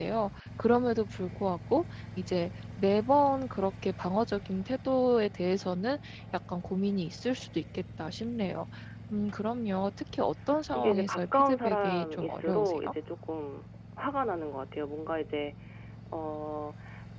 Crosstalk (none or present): present